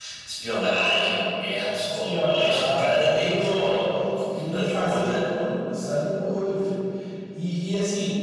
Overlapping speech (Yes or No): Yes